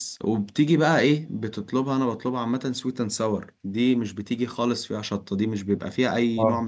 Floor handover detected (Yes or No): No